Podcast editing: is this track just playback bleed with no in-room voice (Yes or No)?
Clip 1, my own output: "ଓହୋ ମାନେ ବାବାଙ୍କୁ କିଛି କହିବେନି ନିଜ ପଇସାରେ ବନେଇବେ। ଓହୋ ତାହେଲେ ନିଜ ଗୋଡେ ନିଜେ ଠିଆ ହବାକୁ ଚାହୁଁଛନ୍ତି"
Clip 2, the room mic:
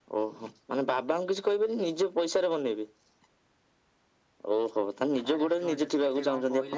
No